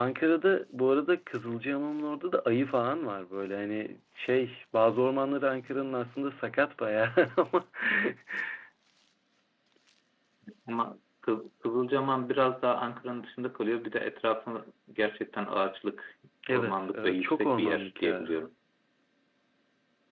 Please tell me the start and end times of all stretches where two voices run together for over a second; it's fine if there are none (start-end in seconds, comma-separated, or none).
16.5-18.4